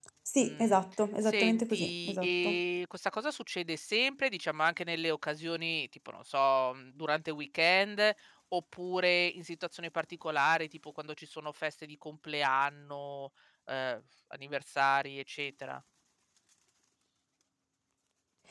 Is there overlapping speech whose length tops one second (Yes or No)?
Yes